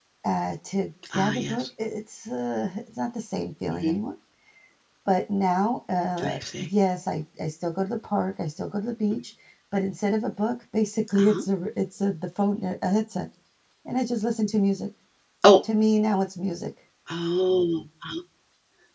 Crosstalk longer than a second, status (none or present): none